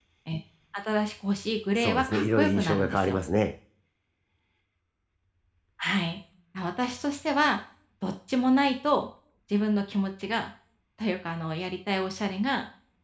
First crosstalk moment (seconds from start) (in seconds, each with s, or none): 1.8 s